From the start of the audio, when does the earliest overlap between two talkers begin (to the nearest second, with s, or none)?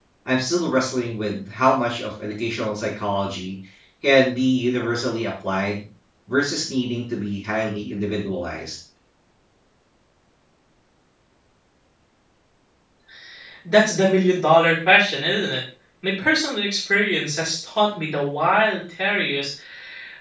none